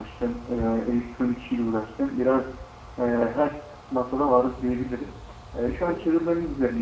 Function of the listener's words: listening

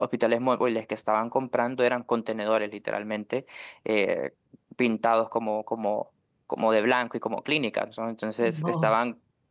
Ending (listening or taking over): listening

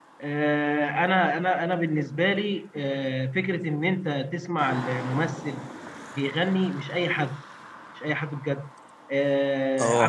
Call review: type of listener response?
listening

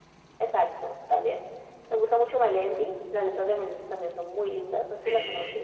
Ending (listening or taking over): taking over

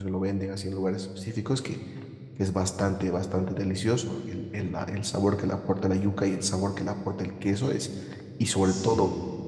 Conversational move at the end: listening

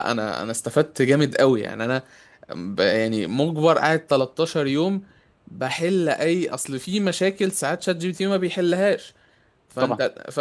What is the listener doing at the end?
listening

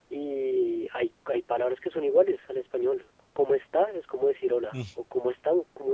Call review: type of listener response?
listening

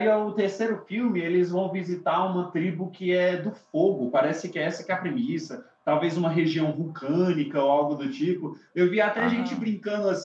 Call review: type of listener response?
listening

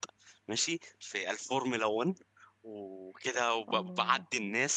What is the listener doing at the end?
listening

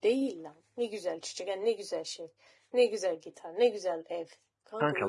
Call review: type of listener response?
taking over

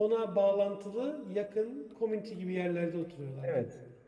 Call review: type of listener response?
taking over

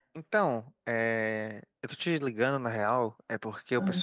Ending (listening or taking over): listening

